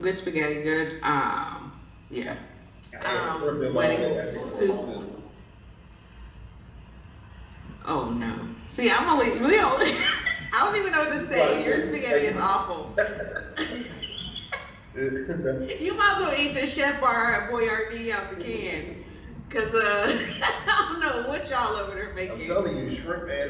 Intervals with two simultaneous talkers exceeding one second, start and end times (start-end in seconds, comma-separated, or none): 3.0-5.0, 11.1-12.3